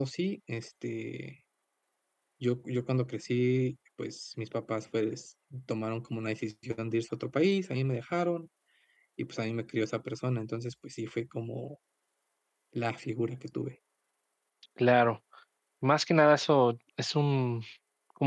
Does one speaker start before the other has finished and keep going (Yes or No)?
No